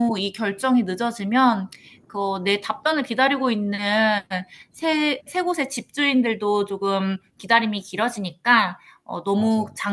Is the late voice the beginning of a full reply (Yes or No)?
No